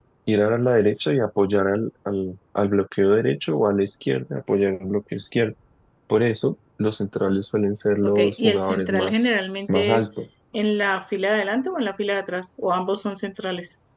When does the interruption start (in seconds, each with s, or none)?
8.0 s